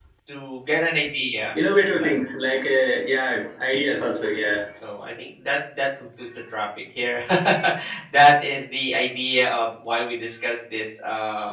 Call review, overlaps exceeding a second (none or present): none